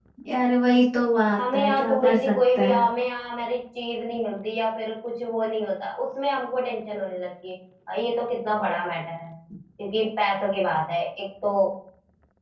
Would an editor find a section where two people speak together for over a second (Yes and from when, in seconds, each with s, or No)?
Yes, from 1.4 s